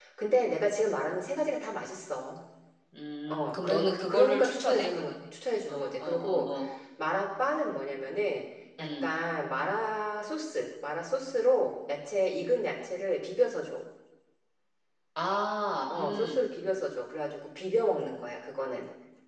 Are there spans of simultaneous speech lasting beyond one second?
Yes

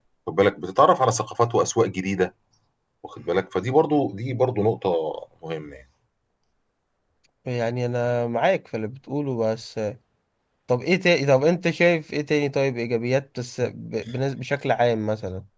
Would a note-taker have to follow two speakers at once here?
No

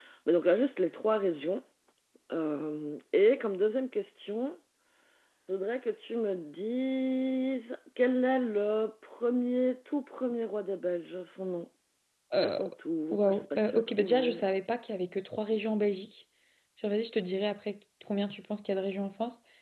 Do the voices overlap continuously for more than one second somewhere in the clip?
Yes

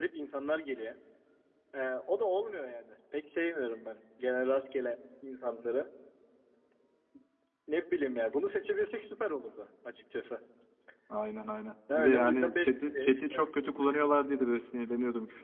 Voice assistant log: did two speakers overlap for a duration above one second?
Yes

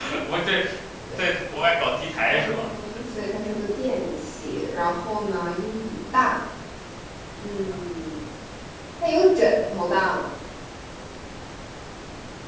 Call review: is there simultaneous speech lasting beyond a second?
No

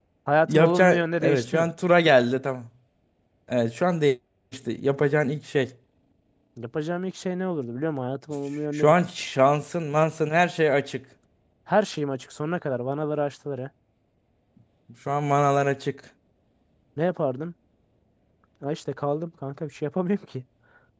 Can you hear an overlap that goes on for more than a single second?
Yes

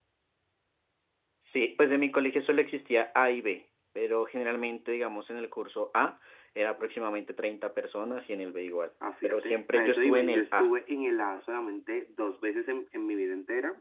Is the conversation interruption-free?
No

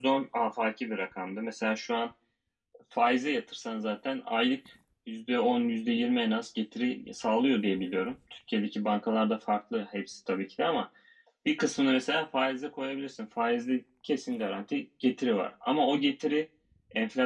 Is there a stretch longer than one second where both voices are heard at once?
No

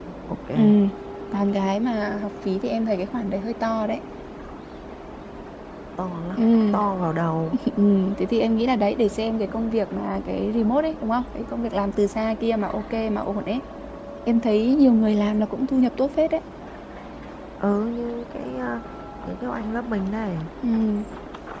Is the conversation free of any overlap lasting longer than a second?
Yes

